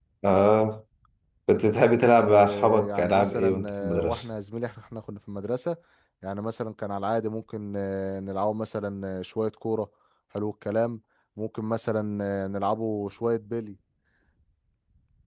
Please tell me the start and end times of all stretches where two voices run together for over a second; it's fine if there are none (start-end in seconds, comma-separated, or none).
2.2-4.2